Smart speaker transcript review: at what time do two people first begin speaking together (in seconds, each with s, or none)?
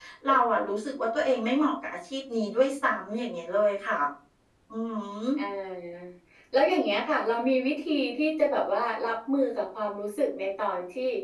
none